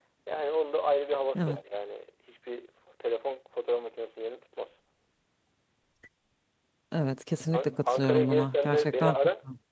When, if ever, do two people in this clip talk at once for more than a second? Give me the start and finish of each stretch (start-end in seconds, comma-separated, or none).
7.5-9.2